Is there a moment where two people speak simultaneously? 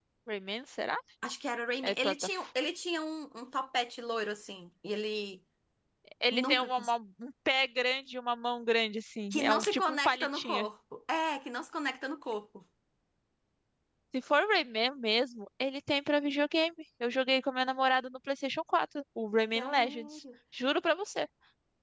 Yes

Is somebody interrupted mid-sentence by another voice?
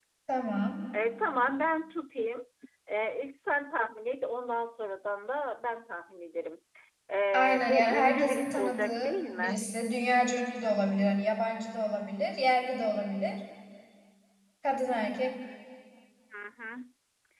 Yes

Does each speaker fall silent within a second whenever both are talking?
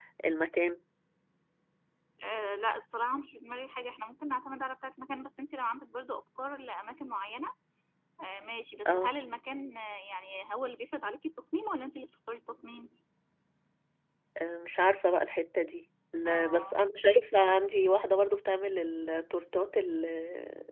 Yes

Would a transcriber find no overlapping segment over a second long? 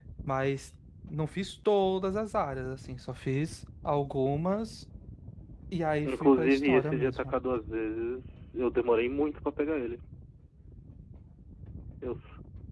No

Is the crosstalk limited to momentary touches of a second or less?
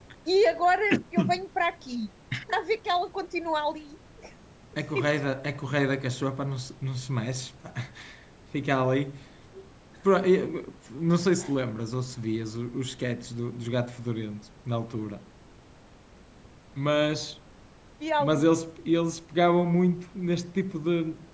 Yes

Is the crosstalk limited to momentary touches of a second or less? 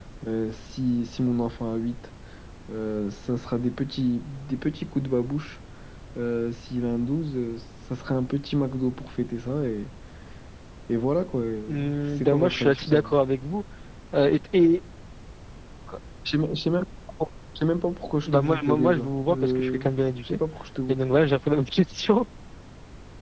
No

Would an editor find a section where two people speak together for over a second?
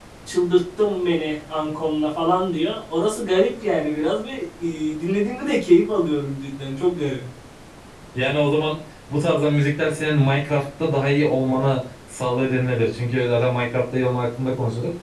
No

